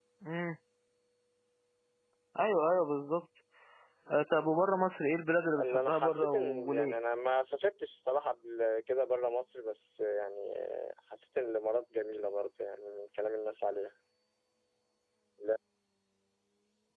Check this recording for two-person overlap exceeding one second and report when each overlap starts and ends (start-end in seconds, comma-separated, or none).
5.6-6.9